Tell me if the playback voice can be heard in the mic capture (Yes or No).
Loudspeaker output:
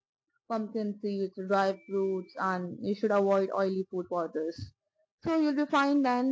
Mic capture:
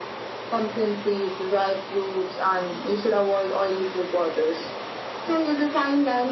Yes